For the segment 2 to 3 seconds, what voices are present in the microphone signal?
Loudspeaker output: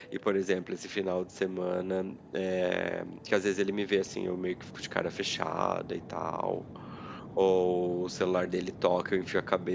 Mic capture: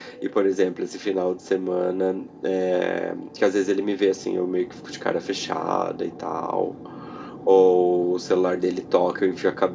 echo only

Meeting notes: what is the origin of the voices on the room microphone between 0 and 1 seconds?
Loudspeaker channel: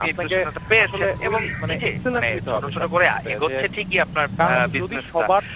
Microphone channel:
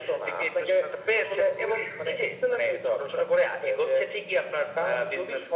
echo only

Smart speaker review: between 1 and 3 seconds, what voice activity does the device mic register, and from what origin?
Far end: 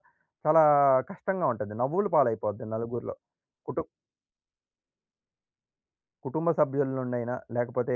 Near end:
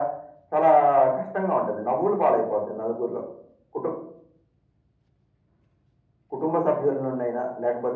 echo only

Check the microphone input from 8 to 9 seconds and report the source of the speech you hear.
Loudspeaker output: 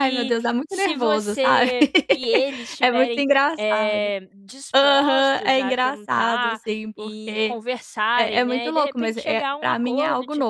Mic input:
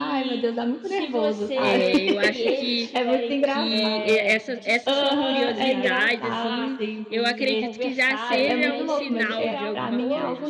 both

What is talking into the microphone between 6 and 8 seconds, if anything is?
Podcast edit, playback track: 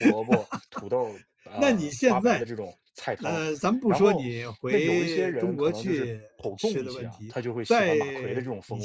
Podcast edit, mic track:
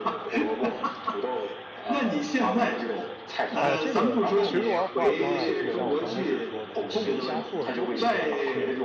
both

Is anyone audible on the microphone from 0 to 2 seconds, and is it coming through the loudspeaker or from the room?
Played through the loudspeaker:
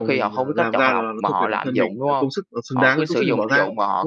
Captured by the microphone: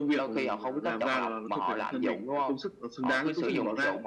echo only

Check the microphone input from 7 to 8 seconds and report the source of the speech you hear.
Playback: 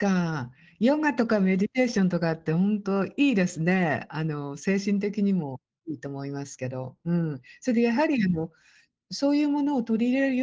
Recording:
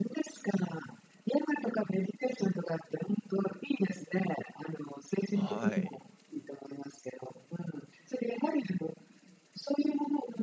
echo only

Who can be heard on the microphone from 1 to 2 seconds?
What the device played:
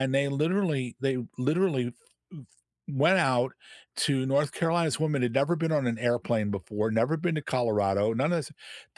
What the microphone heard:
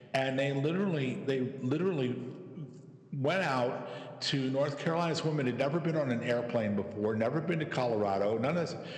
echo only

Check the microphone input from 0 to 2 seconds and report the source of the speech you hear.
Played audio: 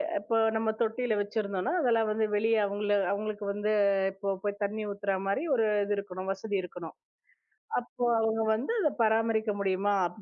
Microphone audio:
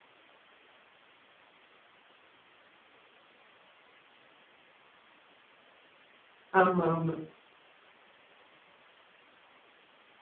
neither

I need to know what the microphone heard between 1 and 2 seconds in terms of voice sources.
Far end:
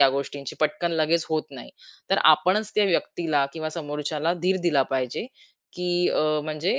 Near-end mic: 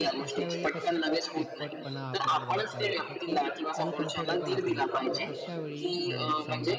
both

